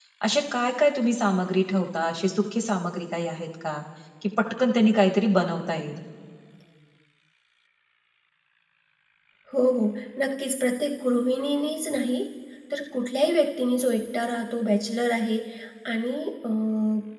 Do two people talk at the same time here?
No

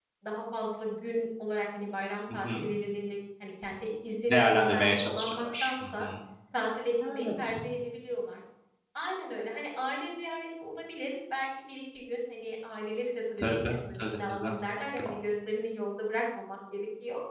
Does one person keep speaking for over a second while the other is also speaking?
Yes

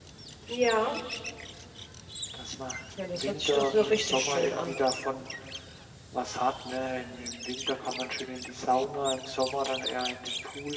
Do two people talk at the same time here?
Yes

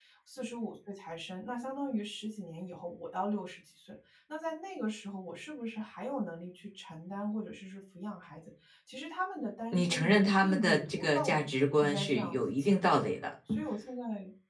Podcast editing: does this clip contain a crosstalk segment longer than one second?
Yes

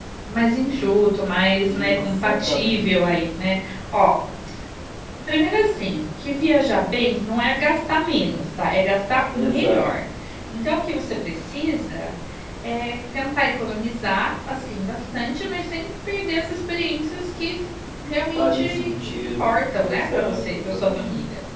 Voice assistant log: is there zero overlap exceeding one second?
No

